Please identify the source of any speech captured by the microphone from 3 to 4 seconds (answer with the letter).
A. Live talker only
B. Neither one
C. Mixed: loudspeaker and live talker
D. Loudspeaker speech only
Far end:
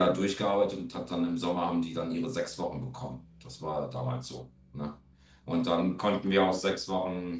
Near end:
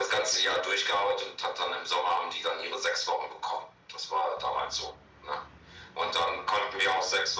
D